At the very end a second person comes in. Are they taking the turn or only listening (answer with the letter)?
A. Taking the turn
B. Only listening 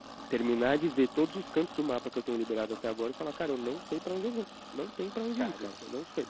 A